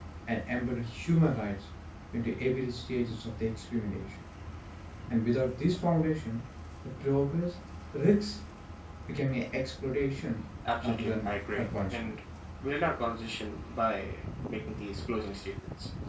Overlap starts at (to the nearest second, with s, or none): 11 s